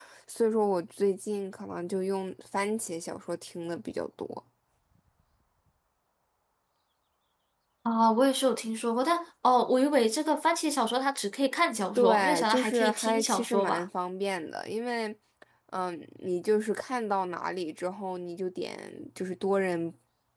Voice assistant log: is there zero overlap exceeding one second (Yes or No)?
No